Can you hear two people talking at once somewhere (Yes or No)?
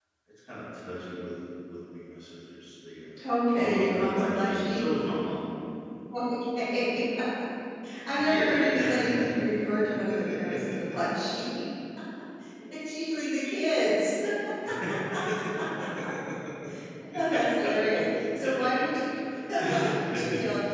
Yes